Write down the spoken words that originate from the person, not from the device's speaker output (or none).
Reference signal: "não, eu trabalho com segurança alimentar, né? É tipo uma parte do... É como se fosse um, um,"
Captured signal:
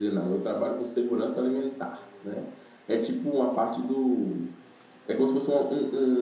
none